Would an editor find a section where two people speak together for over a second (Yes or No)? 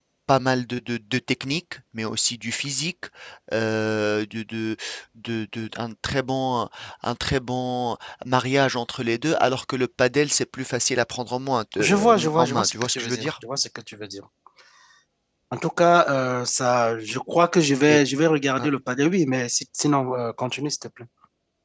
Yes